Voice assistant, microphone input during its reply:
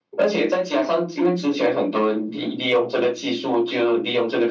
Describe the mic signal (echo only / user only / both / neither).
echo only